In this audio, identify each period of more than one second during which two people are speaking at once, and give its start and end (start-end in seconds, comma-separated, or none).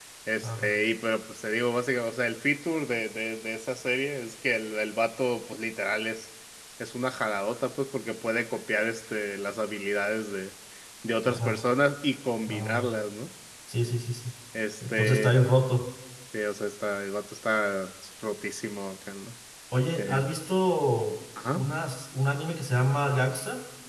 none